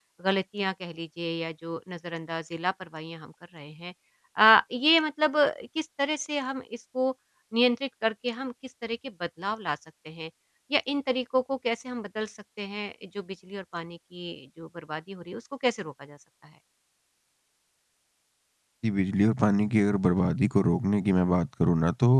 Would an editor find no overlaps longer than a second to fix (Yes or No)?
Yes